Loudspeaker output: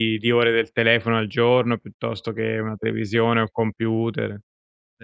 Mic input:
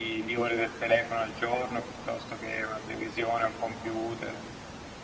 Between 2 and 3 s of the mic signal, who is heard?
echo only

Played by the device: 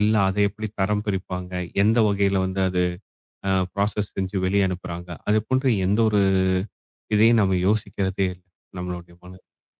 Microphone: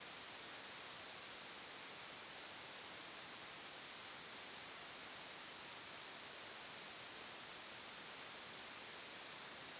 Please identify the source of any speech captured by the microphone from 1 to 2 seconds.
neither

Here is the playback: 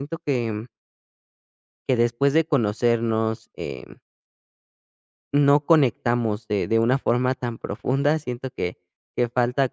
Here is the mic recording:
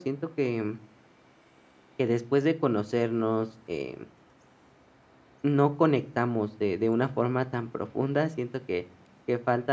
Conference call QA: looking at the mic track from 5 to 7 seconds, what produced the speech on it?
echo only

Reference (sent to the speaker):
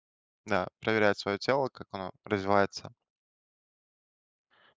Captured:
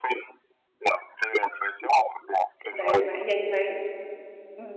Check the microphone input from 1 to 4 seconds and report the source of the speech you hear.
both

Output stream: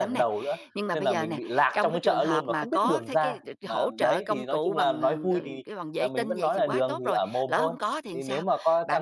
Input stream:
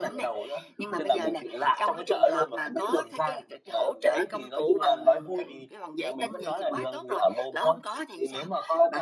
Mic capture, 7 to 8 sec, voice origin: echo only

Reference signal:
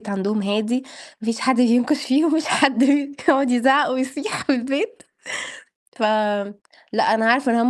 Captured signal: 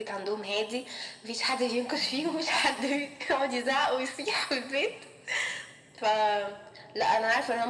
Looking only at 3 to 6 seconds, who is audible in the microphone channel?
echo only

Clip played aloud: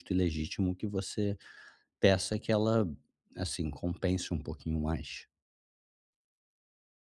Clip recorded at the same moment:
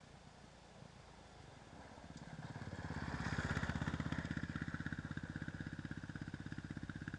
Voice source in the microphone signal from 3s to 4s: neither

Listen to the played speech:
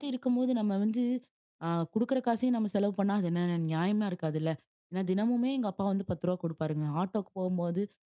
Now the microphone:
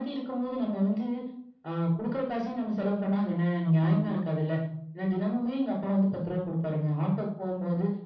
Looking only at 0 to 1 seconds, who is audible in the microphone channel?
echo only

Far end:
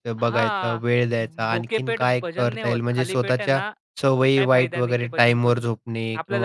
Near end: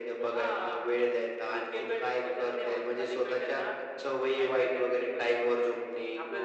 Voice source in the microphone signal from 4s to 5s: echo only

